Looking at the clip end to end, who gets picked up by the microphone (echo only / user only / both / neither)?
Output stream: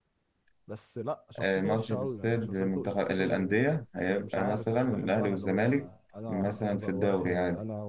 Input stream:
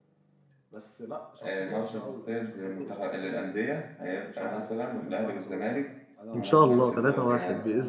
both